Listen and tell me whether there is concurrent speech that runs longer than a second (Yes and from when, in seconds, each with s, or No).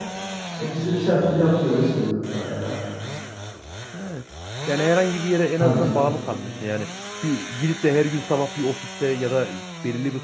No